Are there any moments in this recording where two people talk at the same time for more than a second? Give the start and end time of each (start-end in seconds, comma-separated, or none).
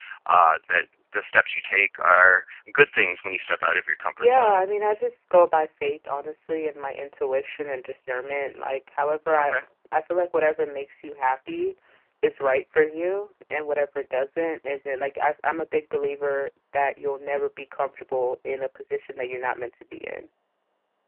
none